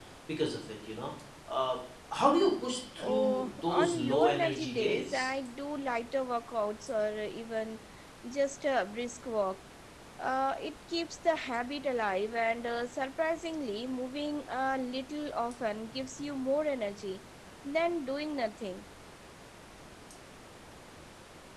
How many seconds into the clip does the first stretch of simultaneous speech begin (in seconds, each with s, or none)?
3.0 s